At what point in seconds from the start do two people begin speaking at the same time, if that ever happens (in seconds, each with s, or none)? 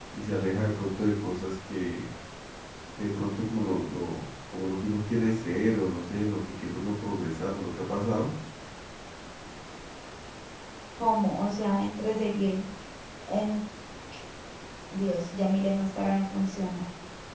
none